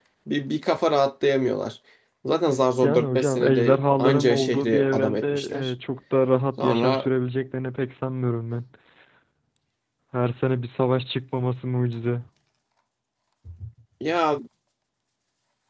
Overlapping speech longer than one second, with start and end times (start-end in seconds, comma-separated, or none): 2.8-5.7